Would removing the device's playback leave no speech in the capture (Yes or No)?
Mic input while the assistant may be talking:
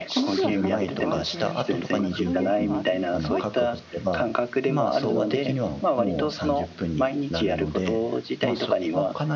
No